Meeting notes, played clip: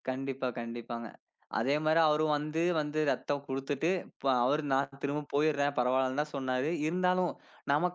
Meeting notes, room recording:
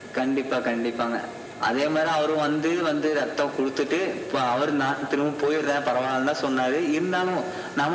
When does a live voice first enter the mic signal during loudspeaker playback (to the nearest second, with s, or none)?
none